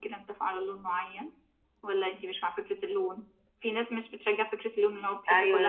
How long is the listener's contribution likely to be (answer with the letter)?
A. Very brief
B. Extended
B